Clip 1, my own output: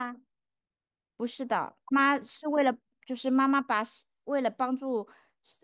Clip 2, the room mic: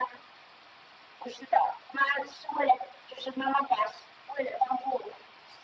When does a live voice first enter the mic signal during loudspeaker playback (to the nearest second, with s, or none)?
none